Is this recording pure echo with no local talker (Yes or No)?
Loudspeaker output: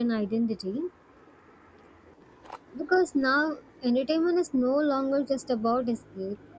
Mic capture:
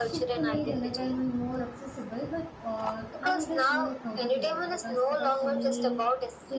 No